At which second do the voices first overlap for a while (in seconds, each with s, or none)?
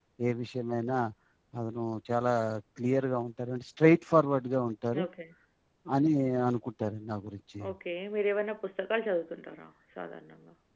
none